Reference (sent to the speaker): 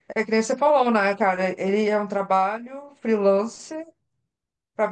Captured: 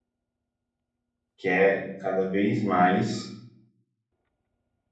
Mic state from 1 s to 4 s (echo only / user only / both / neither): user only